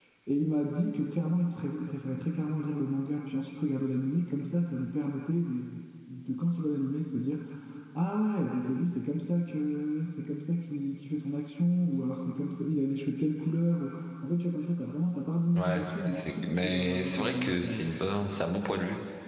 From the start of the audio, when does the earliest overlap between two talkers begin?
15.6 s

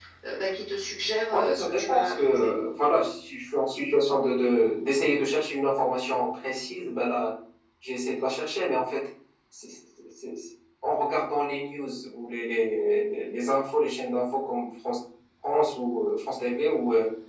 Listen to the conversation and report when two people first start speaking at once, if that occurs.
1.3 s

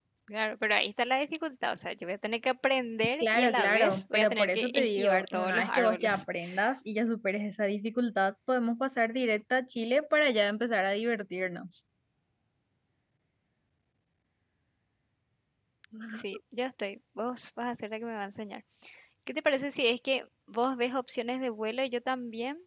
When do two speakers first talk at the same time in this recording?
3.2 s

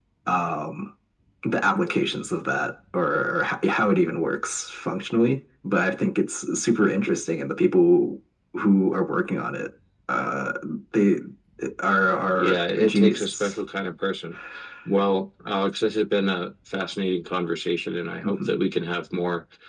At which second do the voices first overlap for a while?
12.4 s

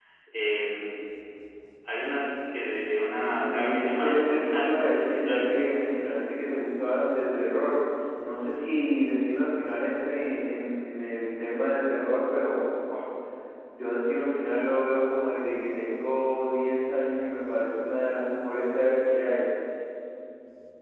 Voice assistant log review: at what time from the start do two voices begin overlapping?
3.4 s

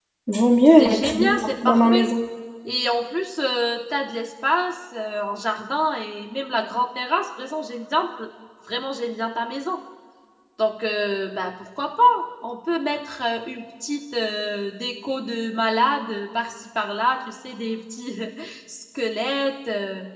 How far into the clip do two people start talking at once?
0.8 s

